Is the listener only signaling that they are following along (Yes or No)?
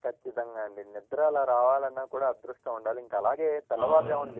Yes